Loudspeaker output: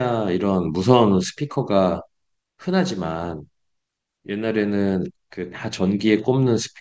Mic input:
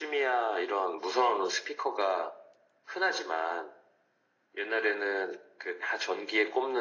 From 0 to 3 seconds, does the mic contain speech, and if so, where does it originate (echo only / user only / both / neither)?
echo only